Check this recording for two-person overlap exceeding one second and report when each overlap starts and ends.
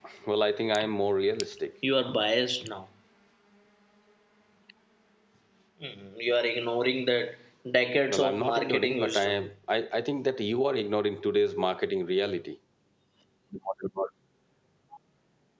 8.1-9.3

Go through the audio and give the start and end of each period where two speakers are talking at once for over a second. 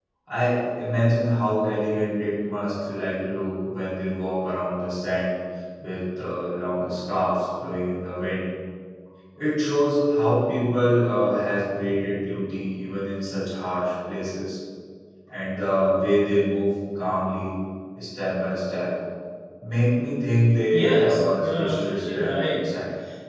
20.7-22.6

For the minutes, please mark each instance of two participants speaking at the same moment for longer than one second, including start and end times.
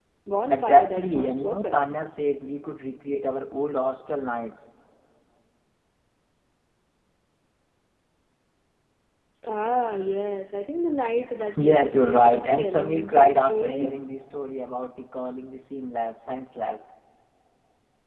0.5-1.8, 11.6-14.0

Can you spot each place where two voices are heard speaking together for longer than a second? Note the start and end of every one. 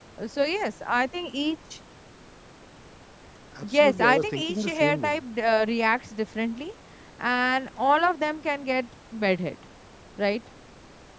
3.6-5.2

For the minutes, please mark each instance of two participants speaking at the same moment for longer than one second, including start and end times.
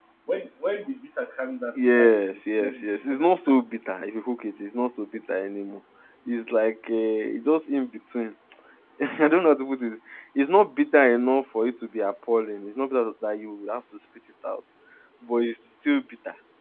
1.8-3.3

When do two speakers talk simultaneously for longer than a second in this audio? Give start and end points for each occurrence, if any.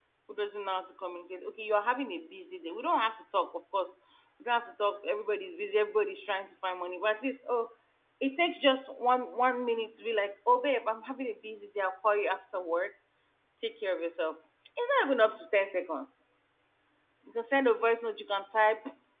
none

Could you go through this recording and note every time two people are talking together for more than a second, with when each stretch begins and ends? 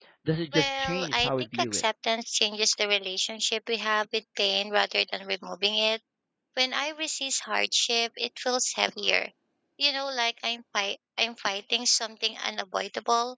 0.5-1.8

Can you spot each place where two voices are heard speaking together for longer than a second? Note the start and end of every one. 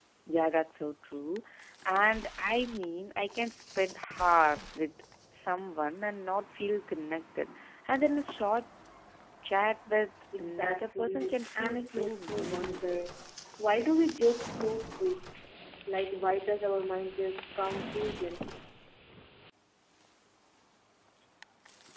10.4-13.0

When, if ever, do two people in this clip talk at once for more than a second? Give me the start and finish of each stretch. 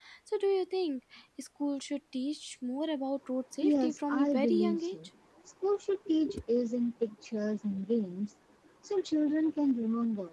3.6-5.0

